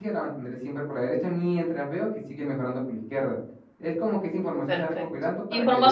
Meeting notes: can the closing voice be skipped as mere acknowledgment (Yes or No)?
No